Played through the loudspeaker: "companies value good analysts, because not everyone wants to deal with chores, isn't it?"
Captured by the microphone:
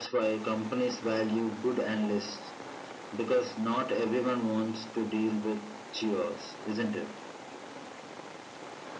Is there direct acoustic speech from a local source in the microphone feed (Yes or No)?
No